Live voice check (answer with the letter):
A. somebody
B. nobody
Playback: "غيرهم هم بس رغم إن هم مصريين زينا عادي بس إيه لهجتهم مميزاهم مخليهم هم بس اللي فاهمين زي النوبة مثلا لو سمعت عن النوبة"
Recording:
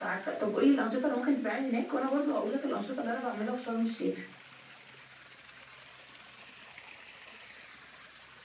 A